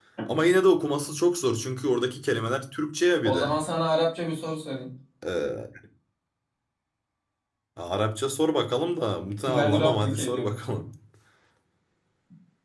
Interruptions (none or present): present